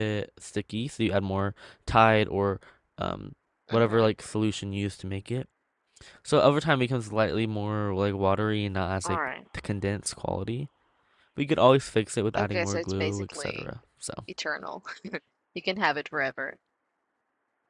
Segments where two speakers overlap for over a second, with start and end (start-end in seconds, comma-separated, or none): 12.4-13.6